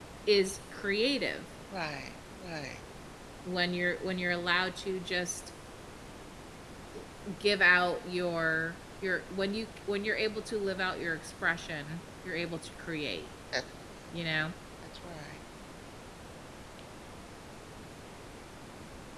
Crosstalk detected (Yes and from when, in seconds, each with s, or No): No